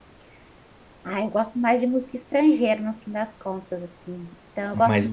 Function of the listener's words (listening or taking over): listening